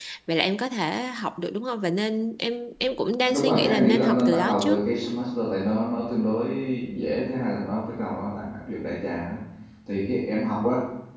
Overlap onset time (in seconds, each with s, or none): 3.3 s